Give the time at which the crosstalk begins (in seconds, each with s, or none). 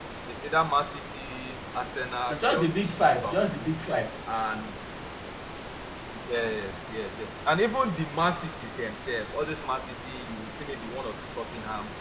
2.3 s